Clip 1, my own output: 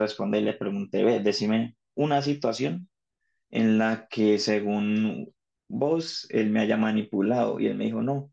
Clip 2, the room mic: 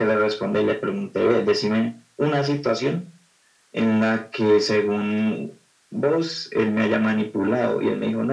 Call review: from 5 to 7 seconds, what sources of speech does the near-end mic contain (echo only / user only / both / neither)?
echo only